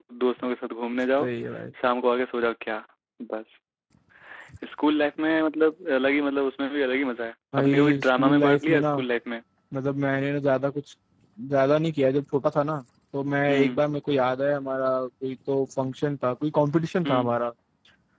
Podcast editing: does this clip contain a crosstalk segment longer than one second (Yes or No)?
Yes